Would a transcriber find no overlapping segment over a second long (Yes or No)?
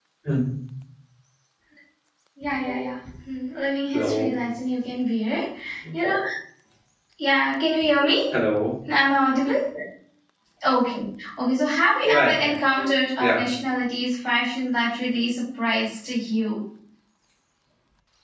Yes